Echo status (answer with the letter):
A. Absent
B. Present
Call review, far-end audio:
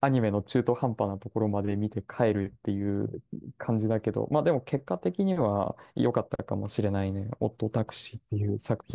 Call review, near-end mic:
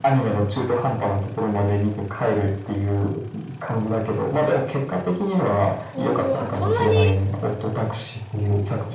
B